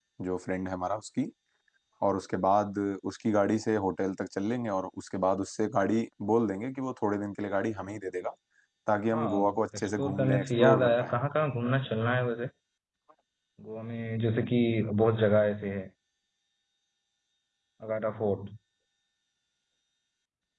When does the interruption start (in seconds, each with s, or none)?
9.1 s